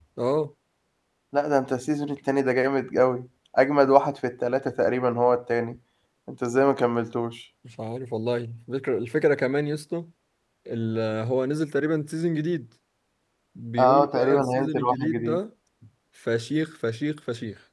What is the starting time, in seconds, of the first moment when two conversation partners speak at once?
13.8 s

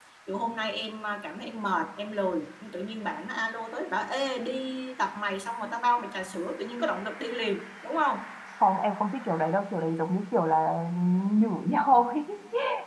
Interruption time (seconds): none

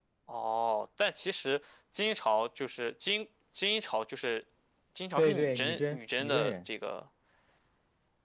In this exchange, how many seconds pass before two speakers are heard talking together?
5.2 s

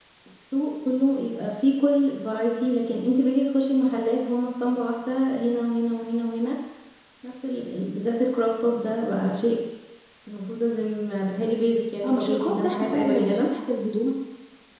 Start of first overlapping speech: 12.0 s

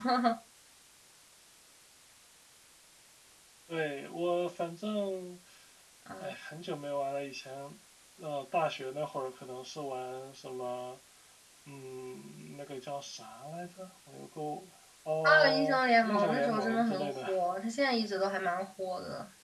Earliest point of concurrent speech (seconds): 15.2 s

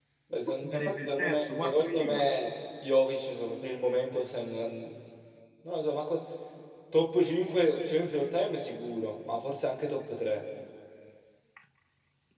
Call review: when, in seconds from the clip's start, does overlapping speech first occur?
0.7 s

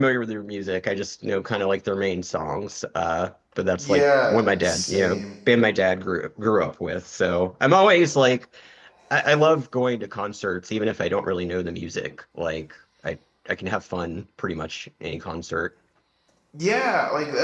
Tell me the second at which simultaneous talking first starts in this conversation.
3.8 s

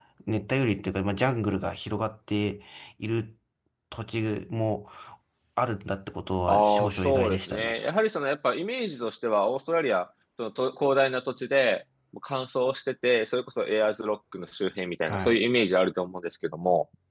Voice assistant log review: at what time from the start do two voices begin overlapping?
6.5 s

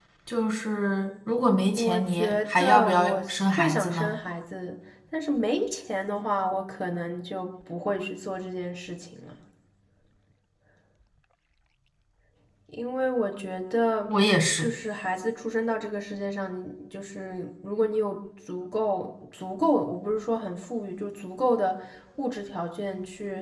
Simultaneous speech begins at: 1.7 s

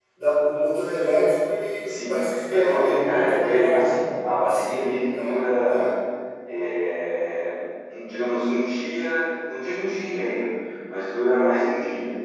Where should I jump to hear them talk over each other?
1.9 s

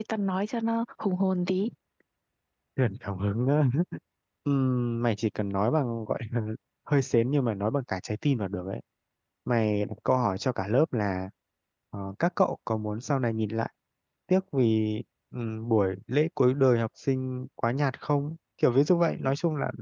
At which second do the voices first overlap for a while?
none

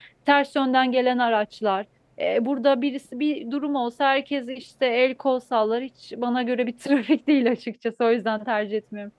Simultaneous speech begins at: none

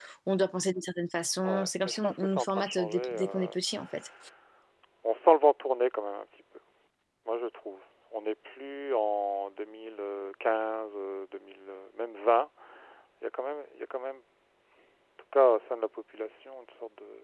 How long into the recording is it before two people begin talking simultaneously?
1.4 s

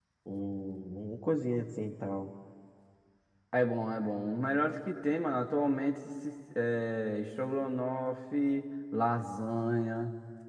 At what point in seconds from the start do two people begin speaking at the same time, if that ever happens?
none

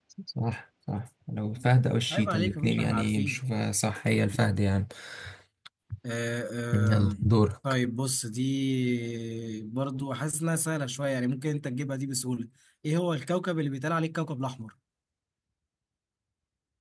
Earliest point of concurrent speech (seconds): 2.1 s

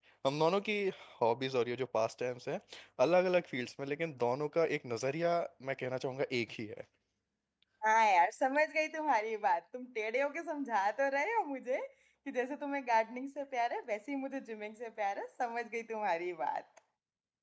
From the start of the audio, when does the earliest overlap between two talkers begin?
none

